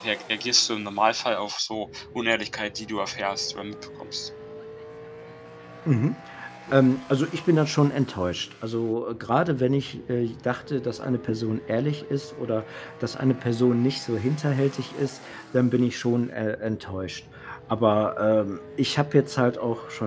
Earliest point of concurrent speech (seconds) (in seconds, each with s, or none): none